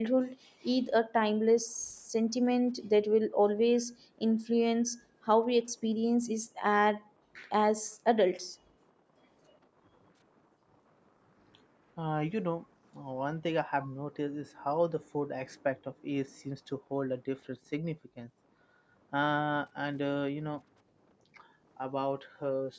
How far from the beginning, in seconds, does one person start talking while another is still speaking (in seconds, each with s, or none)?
none